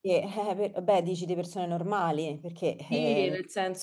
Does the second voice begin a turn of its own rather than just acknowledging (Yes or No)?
Yes